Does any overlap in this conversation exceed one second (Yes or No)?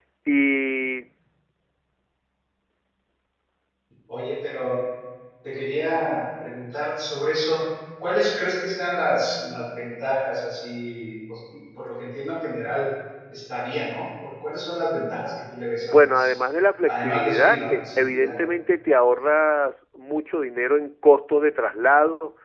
Yes